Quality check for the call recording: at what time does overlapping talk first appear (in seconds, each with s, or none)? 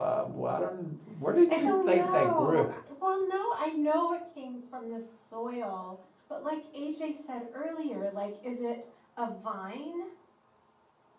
1.5 s